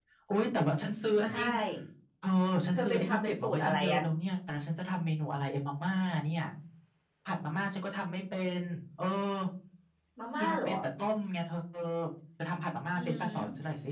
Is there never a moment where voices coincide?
No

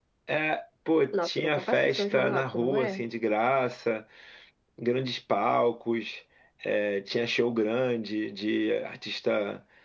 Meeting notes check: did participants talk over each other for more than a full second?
Yes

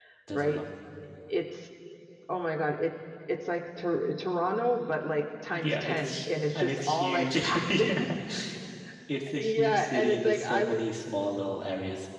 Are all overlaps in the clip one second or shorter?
No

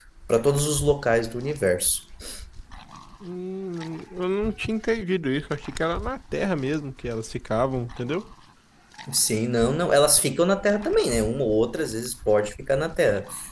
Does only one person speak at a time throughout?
Yes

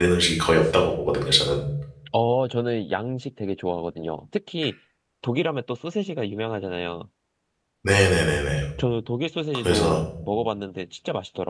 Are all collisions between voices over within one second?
Yes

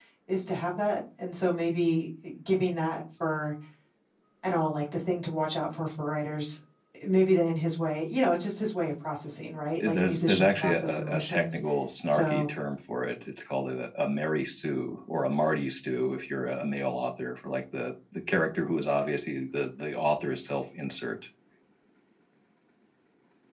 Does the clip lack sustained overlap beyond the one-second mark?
No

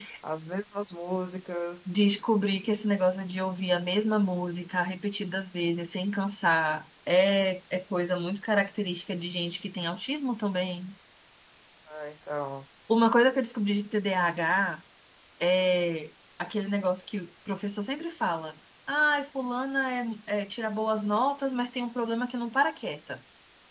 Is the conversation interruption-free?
Yes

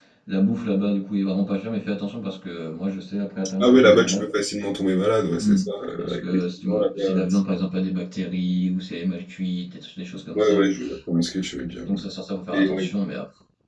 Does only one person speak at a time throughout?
No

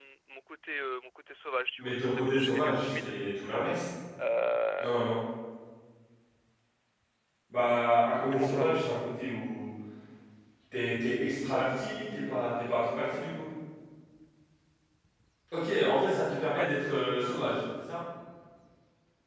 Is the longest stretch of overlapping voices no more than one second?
No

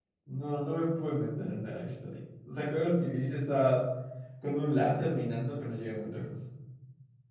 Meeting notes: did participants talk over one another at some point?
No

